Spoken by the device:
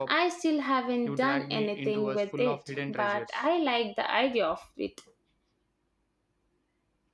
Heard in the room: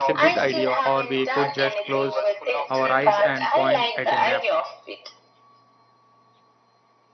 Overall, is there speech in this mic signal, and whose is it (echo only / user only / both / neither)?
both